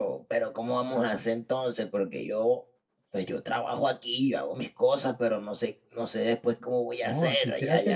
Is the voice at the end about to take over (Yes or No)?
Yes